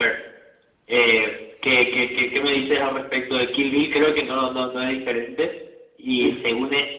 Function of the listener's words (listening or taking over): listening